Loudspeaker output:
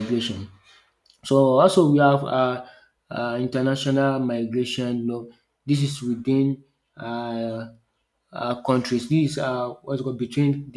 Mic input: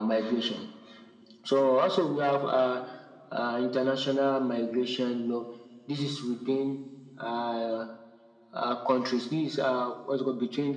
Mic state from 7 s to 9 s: echo only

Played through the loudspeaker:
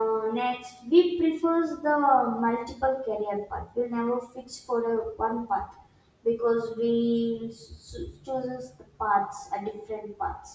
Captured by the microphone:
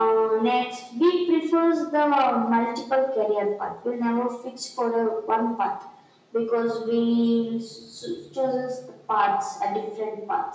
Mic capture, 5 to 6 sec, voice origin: echo only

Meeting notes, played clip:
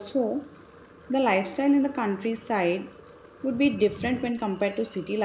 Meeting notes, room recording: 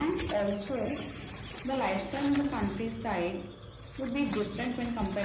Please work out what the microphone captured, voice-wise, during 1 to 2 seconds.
echo only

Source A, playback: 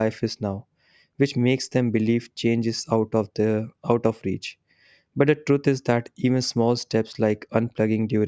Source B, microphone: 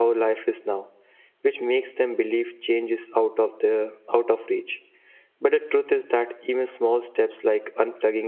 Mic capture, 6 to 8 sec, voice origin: echo only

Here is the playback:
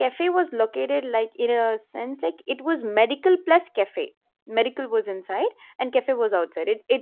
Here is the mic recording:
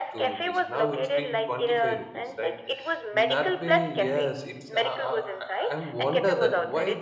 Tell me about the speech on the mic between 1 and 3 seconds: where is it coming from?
both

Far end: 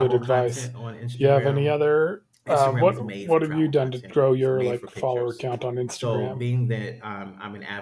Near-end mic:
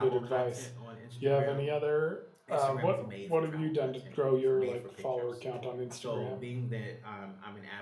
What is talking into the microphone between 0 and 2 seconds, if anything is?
echo only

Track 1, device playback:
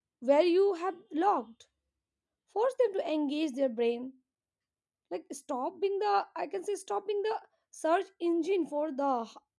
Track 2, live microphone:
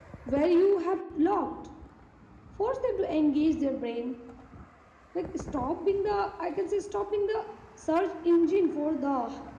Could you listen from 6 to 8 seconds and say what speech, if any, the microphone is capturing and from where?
echo only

